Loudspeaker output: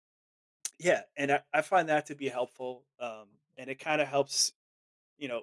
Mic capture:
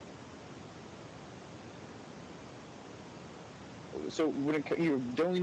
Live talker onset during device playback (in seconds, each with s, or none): 3.9 s